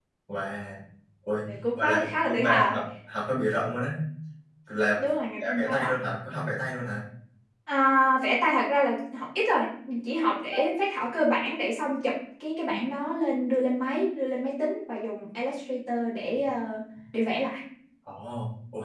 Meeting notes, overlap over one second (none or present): present